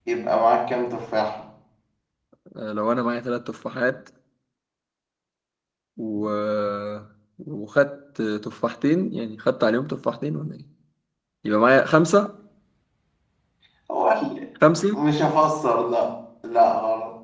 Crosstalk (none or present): none